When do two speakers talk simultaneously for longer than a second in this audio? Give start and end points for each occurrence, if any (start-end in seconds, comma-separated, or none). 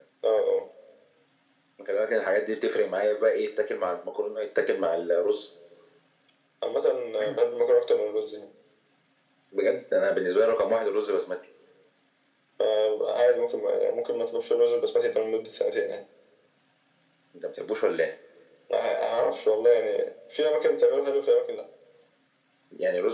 none